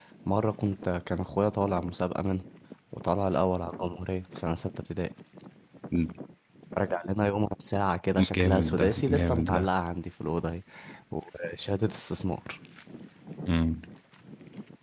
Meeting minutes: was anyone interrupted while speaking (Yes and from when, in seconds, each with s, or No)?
Yes, from 8.2 s